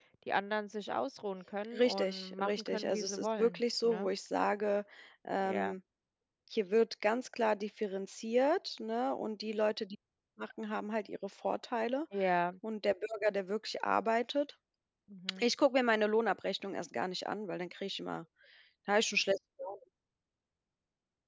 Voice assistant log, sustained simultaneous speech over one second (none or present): present